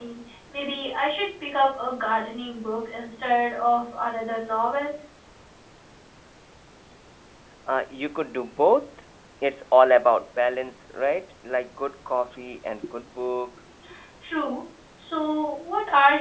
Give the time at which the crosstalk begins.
none

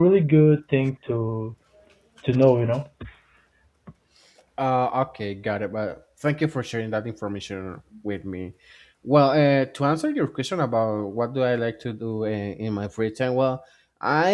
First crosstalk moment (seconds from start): none

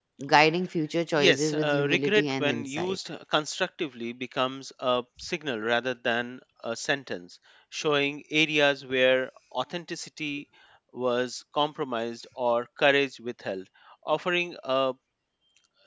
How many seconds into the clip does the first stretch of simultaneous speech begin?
1.2 s

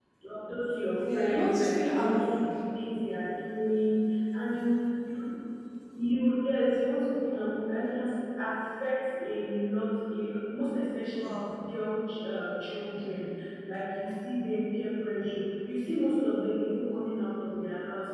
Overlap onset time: 1.0 s

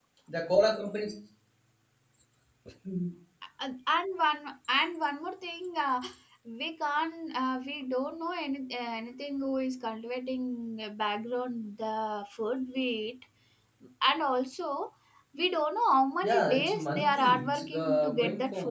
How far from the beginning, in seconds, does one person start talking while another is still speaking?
16.2 s

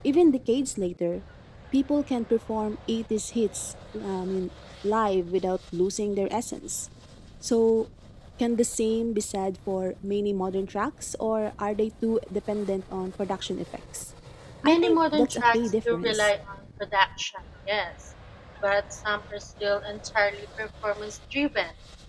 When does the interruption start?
14.6 s

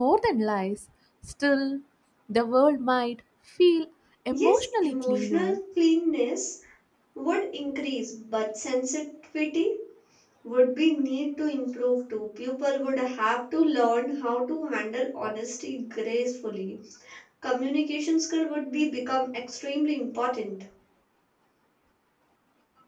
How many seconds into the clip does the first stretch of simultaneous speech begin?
4.3 s

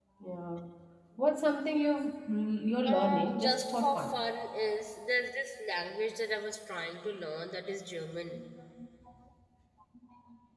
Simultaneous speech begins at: 2.9 s

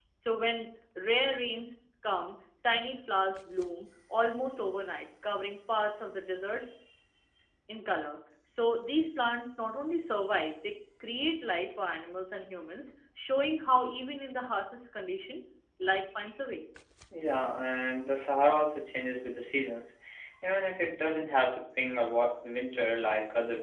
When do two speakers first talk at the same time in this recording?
none

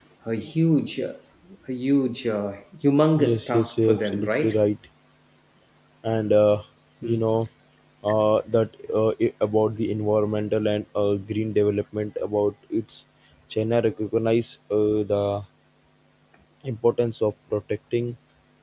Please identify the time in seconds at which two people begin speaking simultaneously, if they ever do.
3.1 s

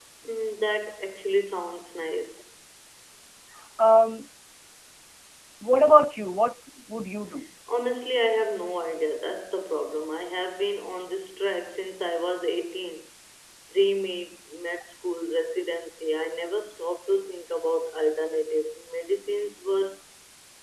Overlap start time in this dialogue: none

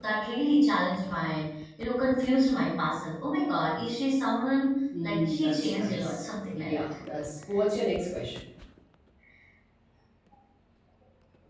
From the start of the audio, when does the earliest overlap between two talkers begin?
4.9 s

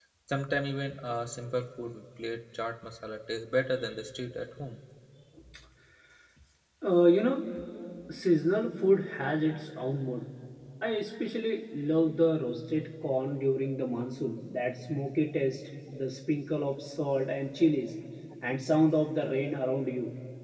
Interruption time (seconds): none

